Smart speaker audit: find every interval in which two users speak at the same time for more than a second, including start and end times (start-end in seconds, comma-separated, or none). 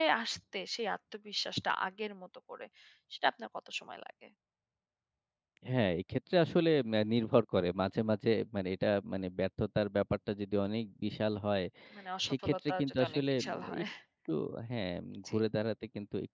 12.3-13.8